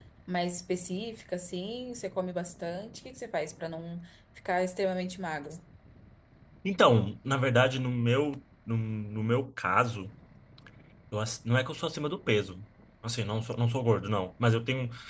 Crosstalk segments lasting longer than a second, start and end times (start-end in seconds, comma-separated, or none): none